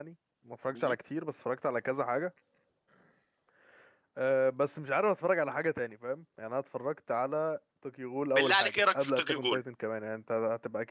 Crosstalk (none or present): present